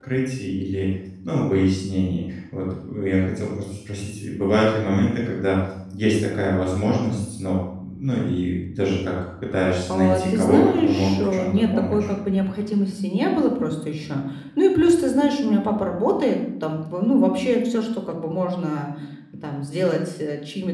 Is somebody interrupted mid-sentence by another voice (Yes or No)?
Yes